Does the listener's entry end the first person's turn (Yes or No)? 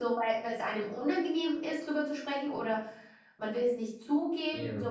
Yes